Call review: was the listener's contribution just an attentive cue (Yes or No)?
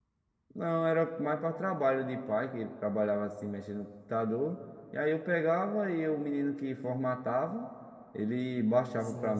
No